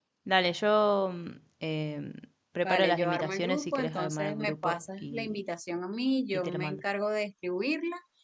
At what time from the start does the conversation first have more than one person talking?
2.6 s

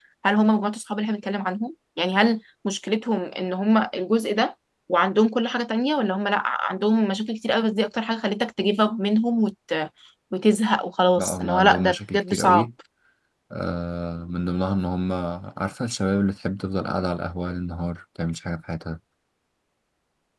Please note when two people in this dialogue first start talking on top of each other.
11.2 s

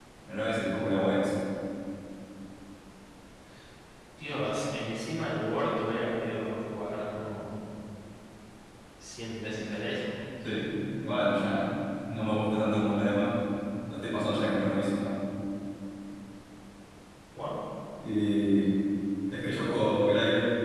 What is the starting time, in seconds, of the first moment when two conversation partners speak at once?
none

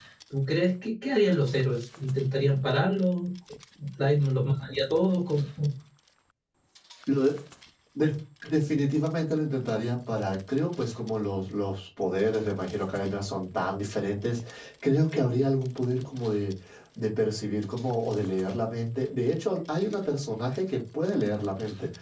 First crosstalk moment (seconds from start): none

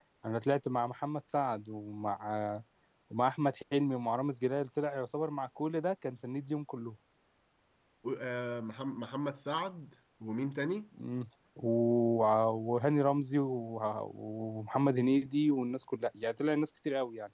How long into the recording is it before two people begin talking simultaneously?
none

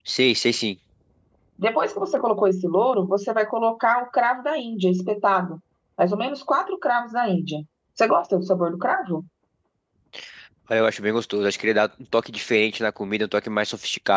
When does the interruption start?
none

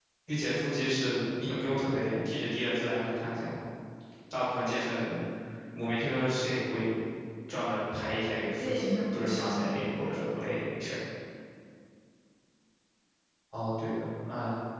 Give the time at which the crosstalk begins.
8.3 s

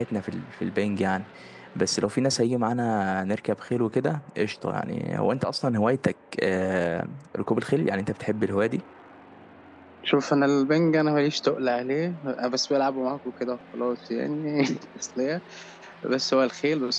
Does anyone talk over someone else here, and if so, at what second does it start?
none

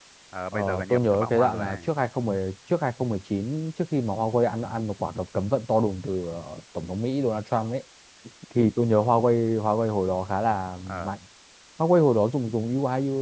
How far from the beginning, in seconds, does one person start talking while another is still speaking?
0.5 s

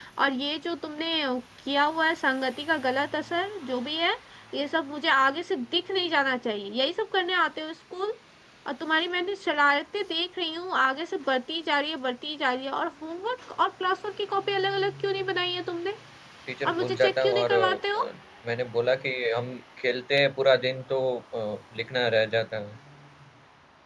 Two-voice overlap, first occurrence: 16.6 s

